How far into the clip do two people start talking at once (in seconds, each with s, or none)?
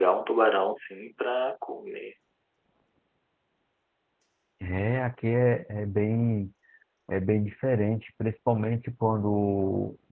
none